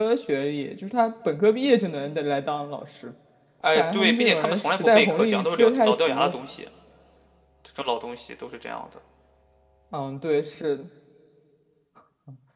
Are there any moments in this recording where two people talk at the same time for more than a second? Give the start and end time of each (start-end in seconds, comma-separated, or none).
3.8-6.4